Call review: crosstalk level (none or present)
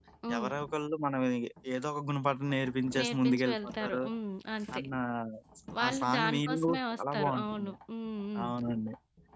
present